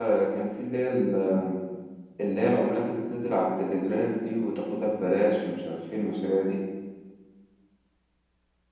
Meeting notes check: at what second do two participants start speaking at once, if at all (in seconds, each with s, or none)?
none